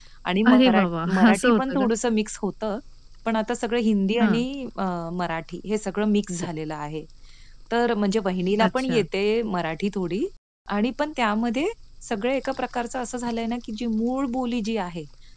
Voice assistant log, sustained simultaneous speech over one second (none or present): present